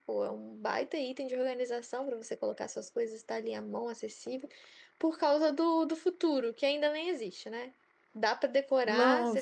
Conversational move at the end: taking over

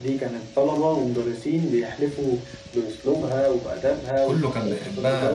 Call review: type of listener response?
taking over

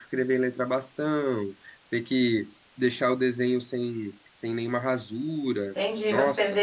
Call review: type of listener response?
taking over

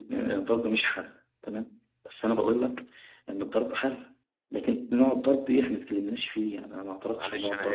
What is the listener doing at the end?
taking over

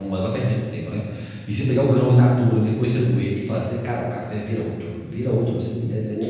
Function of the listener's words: taking over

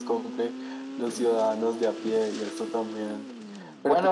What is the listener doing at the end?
taking over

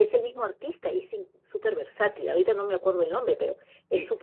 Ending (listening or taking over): taking over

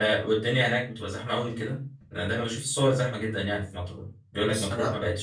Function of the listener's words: listening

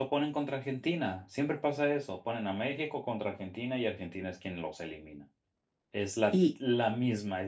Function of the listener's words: listening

